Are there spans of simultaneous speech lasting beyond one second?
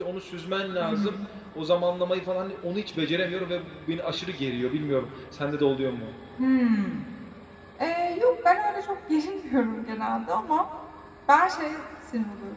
No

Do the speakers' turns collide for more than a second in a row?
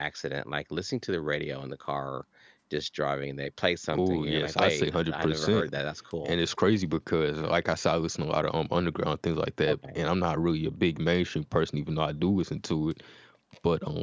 Yes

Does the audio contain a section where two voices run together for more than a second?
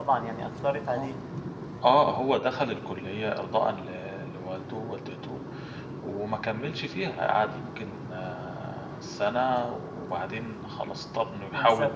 No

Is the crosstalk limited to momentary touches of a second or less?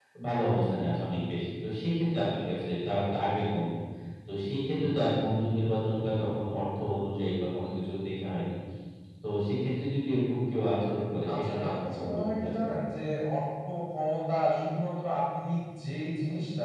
No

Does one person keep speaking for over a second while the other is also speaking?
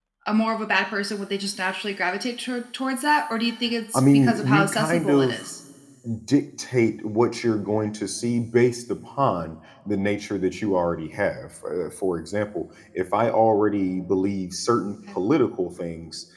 Yes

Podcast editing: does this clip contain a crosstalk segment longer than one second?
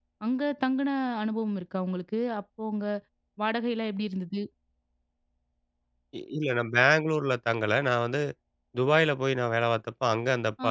No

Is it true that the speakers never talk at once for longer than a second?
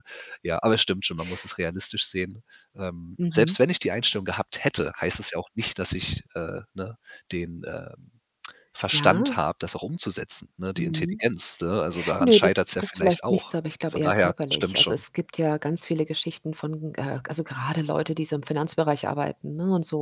No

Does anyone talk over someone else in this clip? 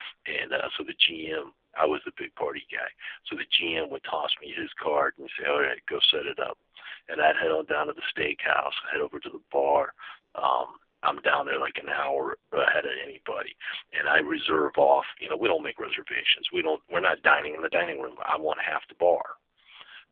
No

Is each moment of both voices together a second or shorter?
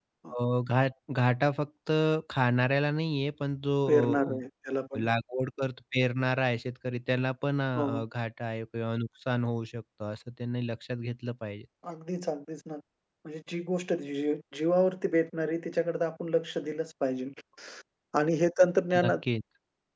Yes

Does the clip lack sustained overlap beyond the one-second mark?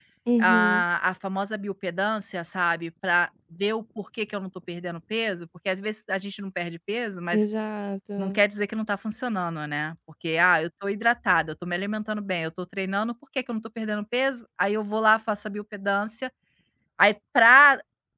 Yes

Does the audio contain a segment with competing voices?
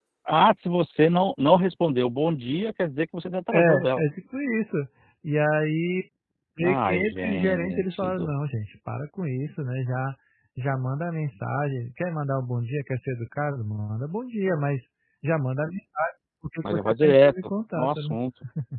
Yes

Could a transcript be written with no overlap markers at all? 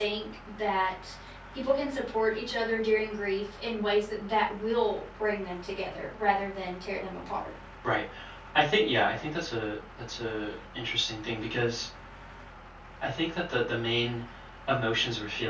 Yes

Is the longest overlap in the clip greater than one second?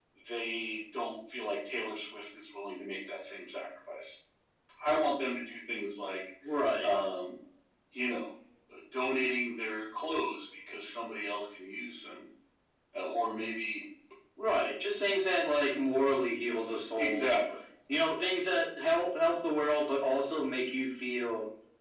No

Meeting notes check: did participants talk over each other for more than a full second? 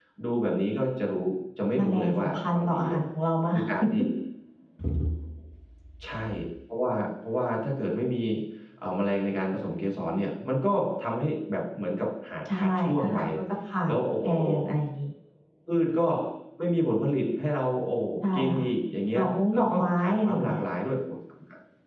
Yes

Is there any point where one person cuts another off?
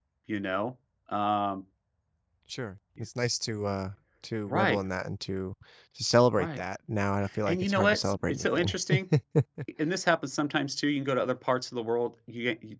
Yes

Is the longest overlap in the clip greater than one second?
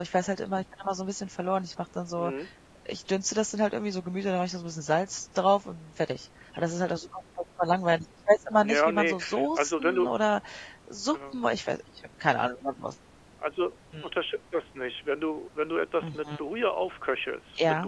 Yes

